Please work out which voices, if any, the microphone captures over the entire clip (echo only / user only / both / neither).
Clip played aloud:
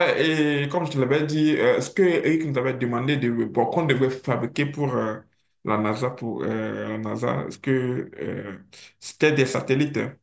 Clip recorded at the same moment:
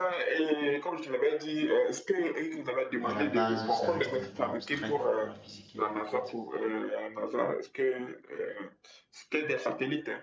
both